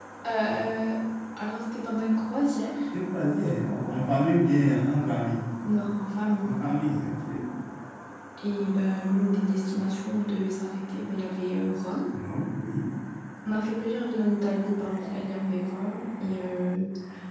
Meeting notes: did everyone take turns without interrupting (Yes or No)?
Yes